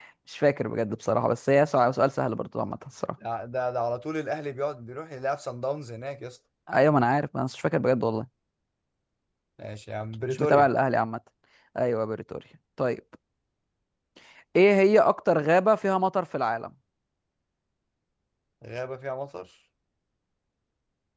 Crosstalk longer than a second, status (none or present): none